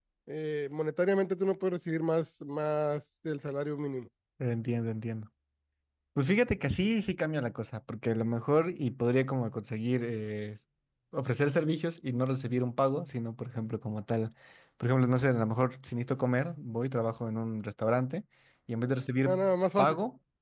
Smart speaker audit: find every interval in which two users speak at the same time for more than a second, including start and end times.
none

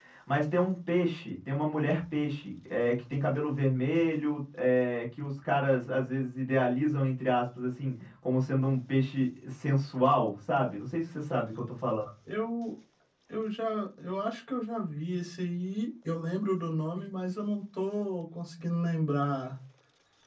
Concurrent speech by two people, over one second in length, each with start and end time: none

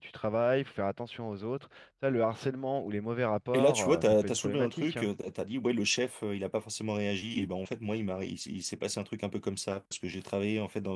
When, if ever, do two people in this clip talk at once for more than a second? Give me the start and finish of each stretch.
3.5-5.1

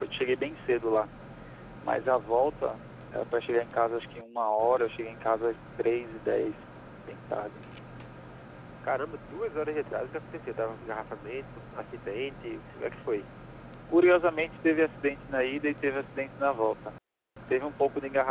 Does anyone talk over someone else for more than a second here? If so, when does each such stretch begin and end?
none

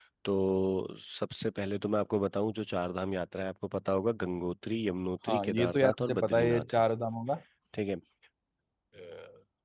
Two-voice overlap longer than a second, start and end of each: 5.3-6.8

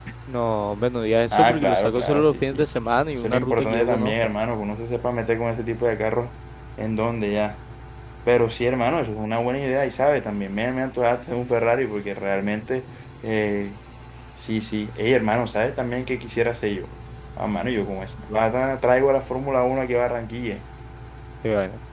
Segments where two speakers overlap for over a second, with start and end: 1.3-2.7, 3.1-4.3

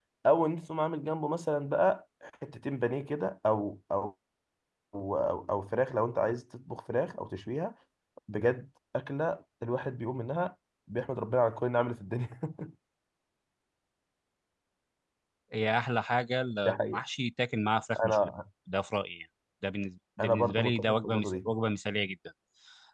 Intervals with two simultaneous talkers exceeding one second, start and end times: 20.2-21.5

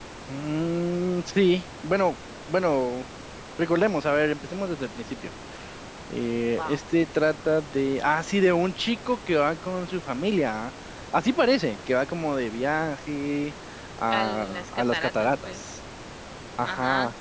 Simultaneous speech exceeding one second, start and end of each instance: 14.1-15.6

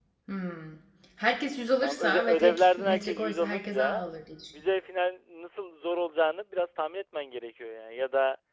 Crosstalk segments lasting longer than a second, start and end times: 1.8-4.0

